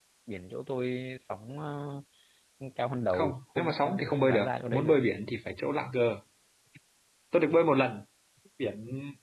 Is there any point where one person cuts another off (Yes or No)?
Yes